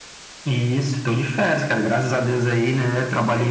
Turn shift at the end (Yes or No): No